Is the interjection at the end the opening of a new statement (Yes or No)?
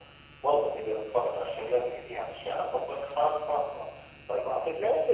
Yes